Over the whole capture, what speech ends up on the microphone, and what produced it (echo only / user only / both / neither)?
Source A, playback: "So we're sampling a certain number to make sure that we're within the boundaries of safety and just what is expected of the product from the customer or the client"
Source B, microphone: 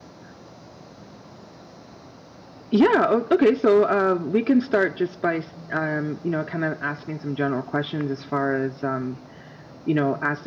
user only